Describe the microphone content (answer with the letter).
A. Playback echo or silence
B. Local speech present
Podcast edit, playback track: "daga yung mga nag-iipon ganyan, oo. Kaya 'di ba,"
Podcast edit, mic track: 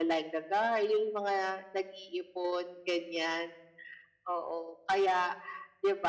A